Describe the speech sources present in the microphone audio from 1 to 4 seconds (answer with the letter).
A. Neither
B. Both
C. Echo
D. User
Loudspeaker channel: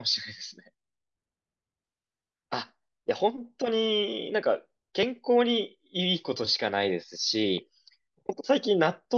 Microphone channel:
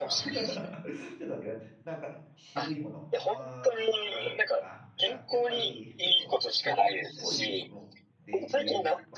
B